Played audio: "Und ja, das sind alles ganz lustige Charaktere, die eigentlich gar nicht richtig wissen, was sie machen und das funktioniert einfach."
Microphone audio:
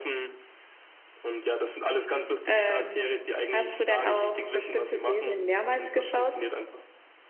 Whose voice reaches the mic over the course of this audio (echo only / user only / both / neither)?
both